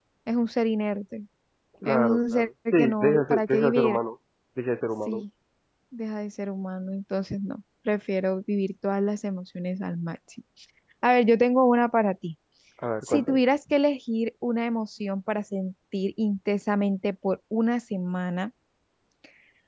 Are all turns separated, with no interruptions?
No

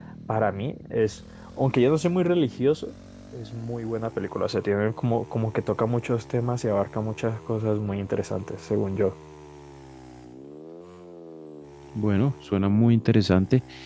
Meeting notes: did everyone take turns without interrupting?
Yes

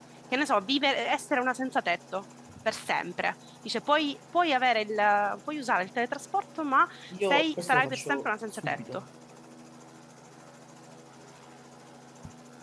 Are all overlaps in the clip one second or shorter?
No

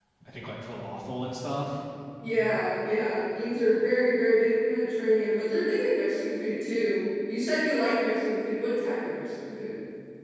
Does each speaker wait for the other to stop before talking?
Yes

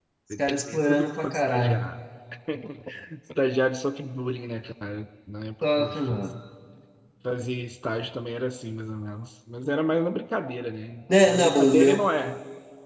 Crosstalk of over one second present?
Yes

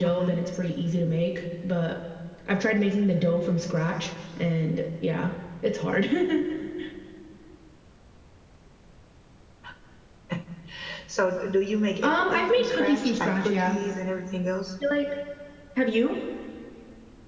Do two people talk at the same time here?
Yes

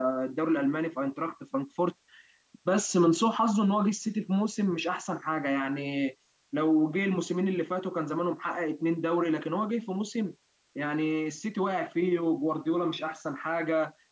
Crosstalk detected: No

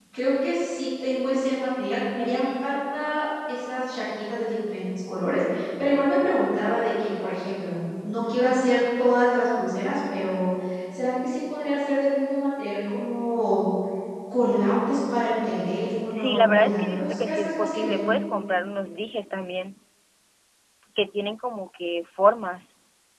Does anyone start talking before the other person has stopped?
Yes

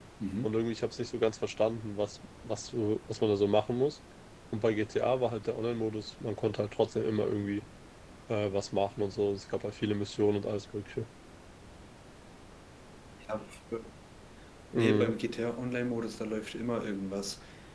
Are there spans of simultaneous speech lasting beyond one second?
No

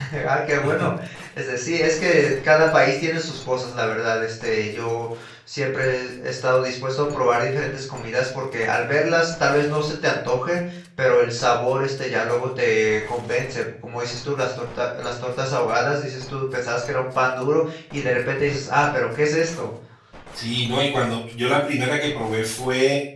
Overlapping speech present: No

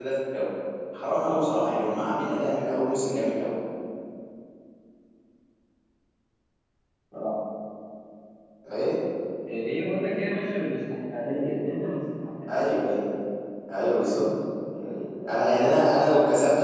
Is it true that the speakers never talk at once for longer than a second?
No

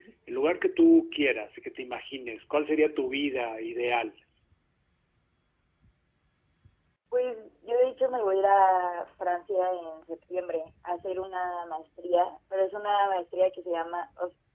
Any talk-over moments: No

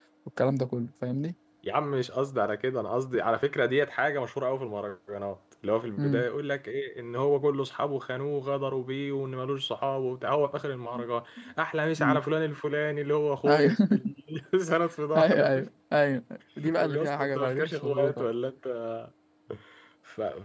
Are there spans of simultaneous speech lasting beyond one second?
Yes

